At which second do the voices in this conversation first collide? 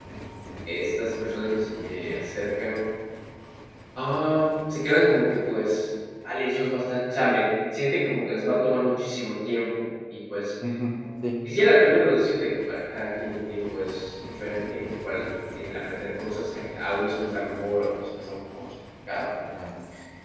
none

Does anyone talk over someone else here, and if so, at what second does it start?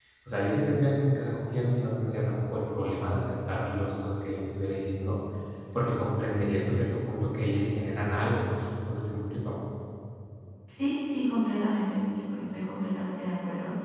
none

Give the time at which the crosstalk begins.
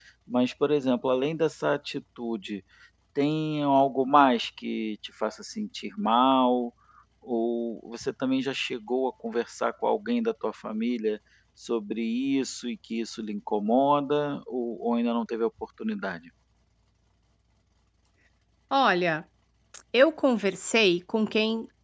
none

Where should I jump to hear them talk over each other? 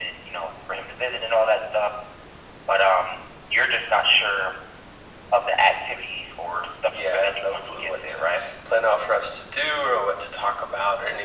7.0 s

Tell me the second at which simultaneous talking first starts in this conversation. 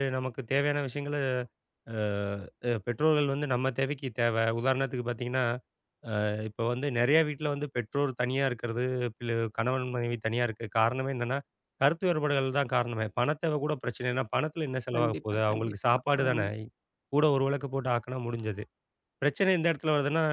14.9 s

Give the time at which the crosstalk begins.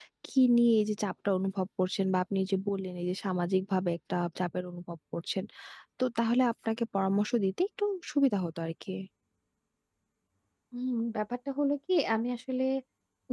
none

